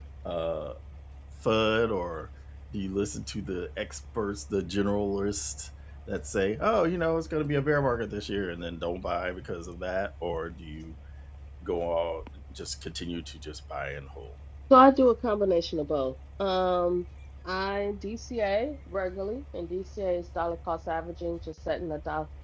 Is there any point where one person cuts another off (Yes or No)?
No